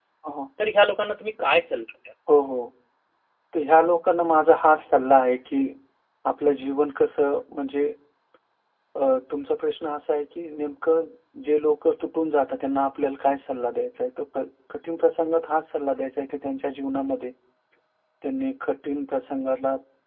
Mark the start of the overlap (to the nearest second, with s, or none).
none